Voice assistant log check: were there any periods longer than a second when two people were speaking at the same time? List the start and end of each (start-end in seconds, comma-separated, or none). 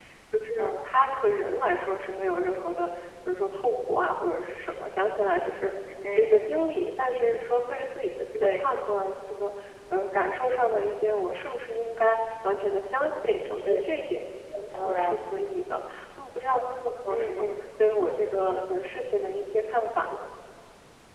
none